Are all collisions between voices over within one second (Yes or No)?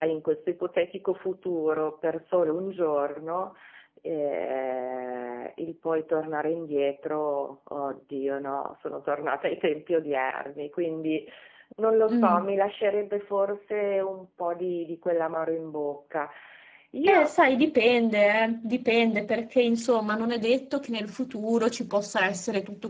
Yes